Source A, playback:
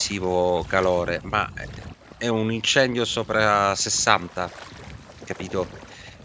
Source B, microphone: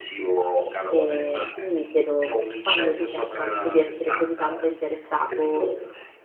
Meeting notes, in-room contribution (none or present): present